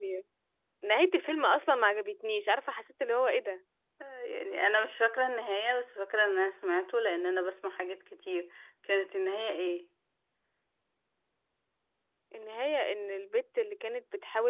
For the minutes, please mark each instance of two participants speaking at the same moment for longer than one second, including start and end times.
none

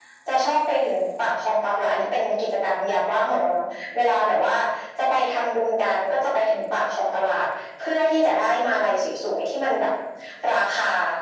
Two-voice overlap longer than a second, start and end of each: none

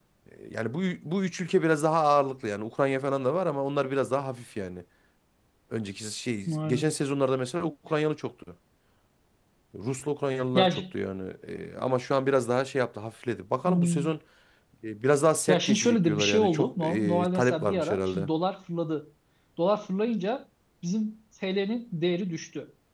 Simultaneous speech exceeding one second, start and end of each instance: 15.5-18.3

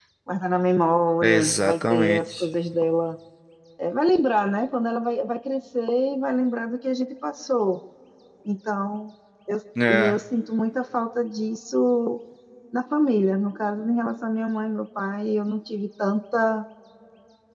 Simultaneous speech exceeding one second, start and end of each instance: 1.2-2.5

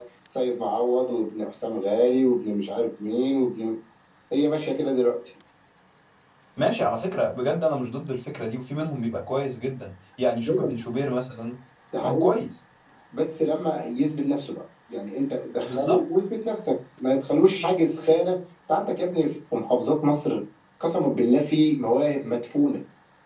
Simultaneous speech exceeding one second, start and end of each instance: none

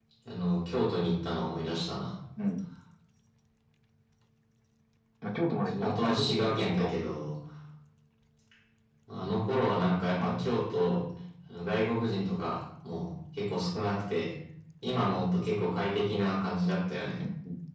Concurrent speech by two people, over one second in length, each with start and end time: 5.6-6.9

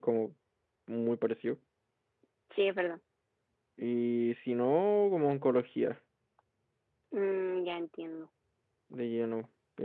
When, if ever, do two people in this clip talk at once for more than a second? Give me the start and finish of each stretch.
none

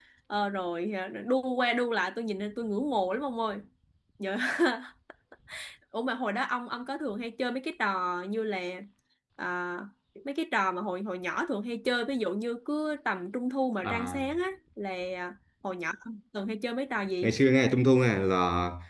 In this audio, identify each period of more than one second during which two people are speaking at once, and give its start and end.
none

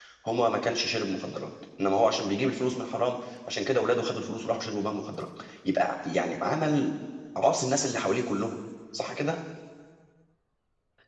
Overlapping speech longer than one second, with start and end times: none

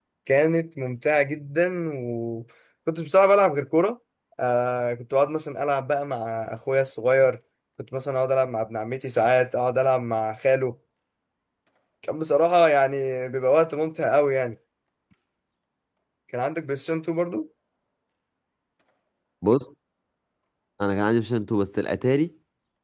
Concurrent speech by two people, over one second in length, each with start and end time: none

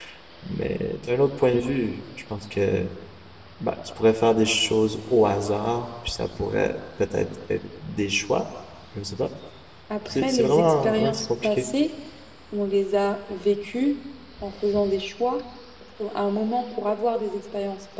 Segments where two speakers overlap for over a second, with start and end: 10.1-11.7

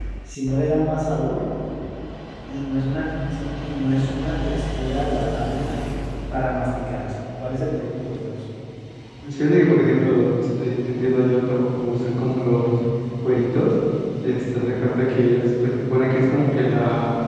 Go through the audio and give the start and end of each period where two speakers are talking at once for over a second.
none

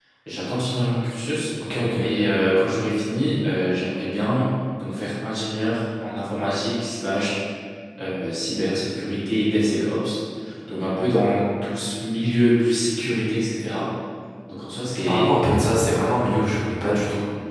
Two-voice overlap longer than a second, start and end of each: none

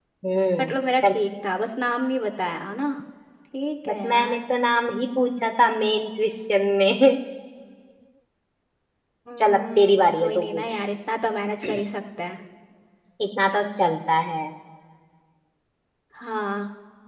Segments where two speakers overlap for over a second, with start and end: 9.4-10.8

